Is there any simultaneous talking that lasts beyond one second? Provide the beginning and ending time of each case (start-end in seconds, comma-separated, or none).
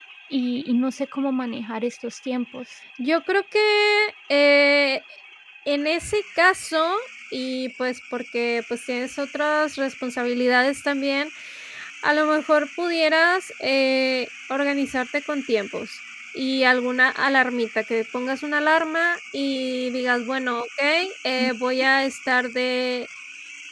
none